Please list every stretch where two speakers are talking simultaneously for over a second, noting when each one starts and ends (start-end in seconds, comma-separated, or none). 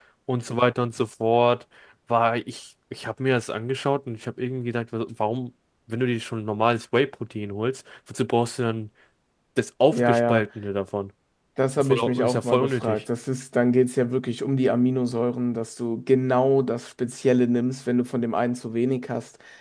11.8-13.0